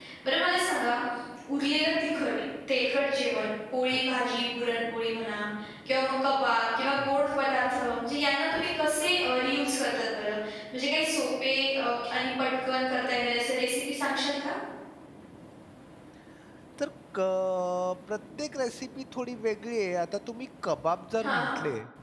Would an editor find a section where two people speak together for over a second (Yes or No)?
No